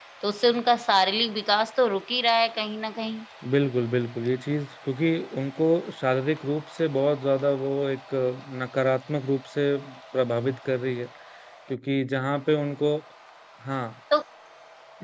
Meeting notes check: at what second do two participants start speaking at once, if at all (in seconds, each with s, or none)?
none